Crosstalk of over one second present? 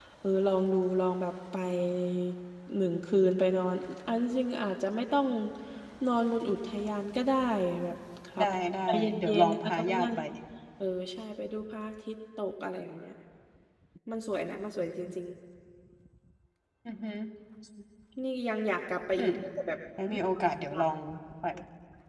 Yes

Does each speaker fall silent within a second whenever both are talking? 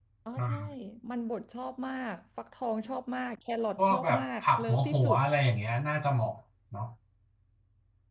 No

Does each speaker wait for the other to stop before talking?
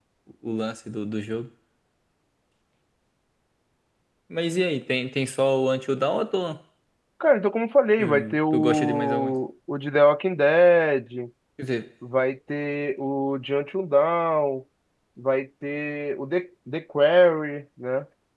No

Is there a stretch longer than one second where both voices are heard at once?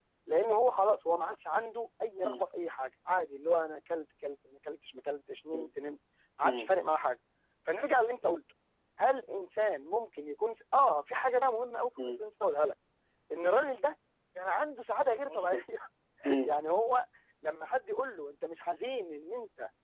No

